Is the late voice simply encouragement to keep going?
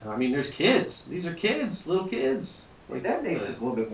No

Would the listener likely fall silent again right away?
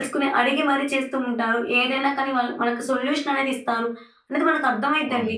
Yes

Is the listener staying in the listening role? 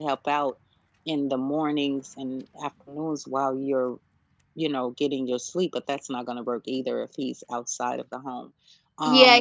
No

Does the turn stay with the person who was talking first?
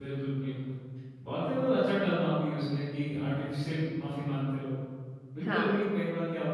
Yes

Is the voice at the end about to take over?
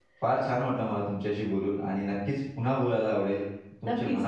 Yes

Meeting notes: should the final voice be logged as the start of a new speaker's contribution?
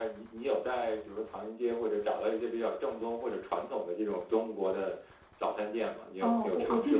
Yes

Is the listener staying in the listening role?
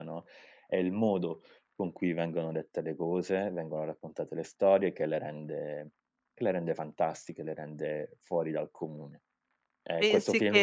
Yes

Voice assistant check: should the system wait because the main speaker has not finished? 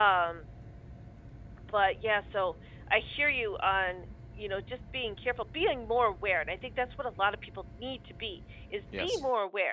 Yes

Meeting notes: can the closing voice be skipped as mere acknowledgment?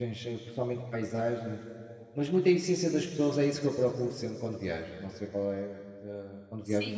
No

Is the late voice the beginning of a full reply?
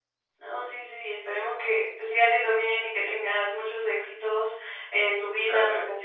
No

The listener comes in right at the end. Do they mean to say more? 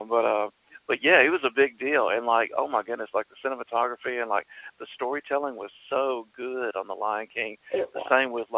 No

